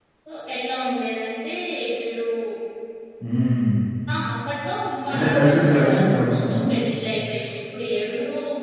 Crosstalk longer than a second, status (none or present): present